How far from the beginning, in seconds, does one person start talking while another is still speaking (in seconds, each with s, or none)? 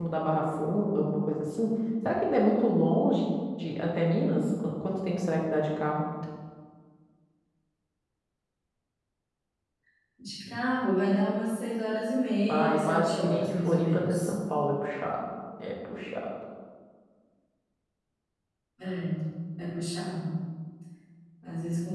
12.5 s